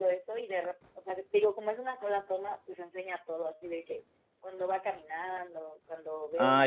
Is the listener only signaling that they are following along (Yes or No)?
No